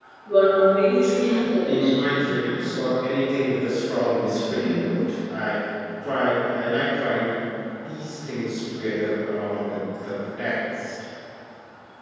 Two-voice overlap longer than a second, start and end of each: 0.8-2.1

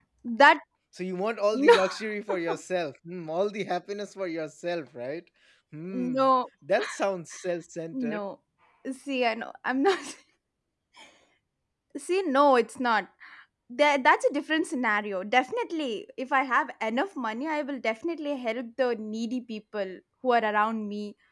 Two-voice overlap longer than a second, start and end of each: none

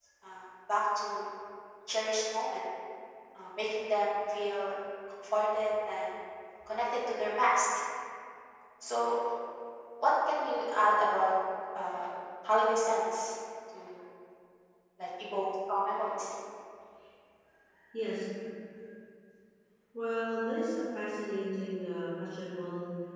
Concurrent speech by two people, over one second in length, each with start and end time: none

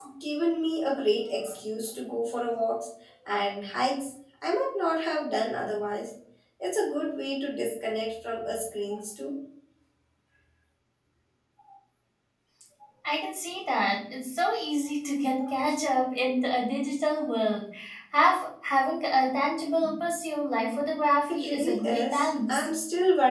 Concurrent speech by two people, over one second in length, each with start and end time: 21.3-22.7

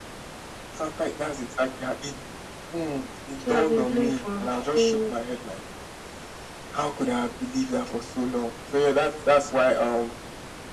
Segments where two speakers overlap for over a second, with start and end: 3.4-5.1

